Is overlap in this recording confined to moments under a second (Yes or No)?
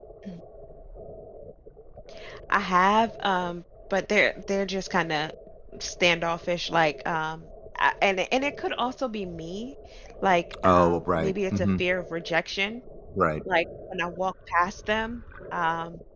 No